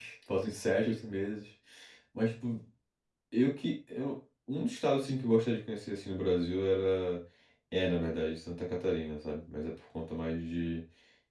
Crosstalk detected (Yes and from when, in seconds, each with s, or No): No